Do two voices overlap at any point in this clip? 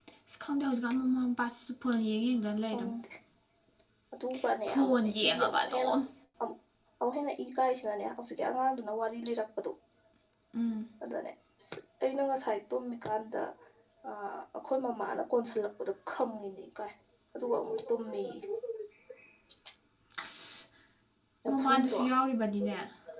Yes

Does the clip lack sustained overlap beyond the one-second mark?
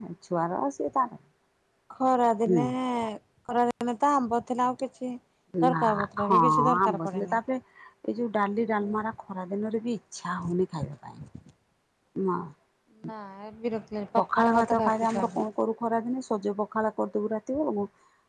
No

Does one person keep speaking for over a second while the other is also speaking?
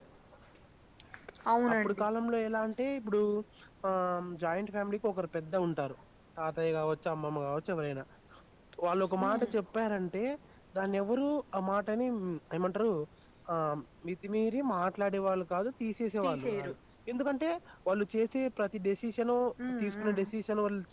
No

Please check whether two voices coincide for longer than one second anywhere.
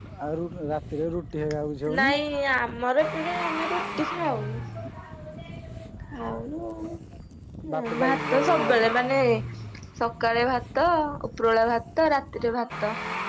Yes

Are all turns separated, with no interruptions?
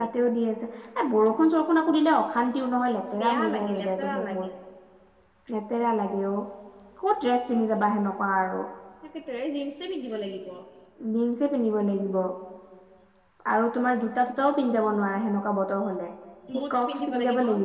No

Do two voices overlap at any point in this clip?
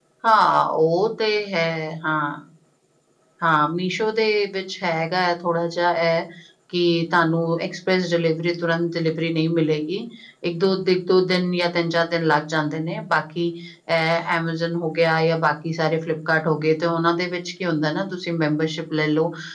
No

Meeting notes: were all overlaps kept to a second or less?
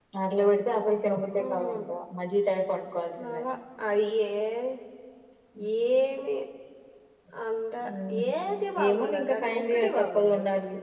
No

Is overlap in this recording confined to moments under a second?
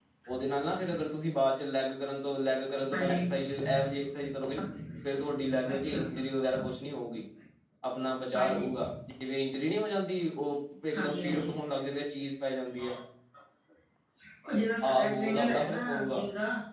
No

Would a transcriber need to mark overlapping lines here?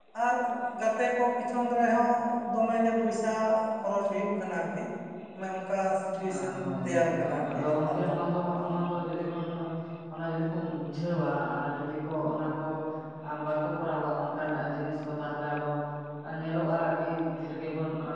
Yes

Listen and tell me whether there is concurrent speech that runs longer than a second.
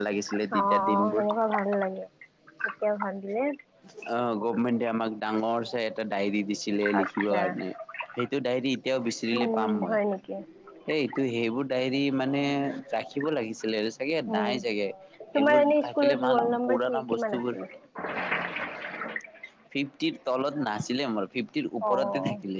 Yes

